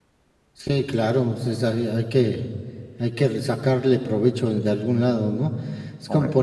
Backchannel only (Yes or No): Yes